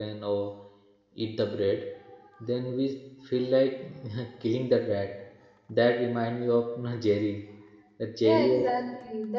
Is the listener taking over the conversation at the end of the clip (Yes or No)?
Yes